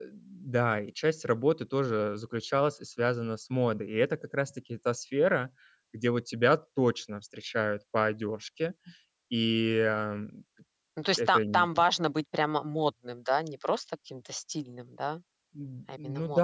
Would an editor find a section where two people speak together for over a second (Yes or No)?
No